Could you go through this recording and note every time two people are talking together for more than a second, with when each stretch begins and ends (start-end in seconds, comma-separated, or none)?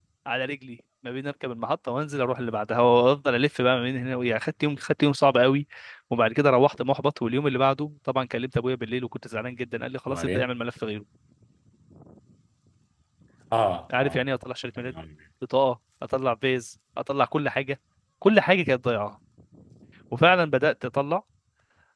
none